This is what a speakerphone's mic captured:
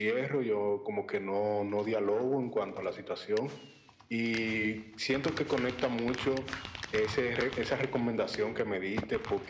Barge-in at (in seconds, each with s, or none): none